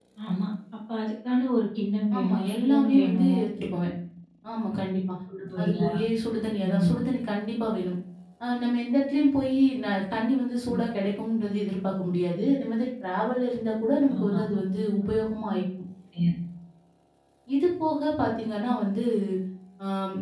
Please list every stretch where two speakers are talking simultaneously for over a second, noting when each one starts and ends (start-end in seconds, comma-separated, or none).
2.2-3.4